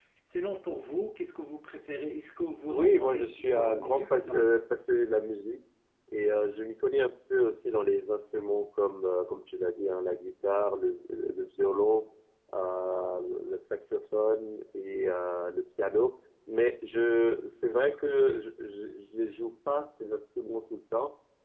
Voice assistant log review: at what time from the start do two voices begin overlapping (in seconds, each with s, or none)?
2.7 s